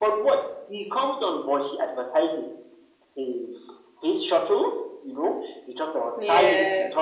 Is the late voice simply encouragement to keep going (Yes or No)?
Yes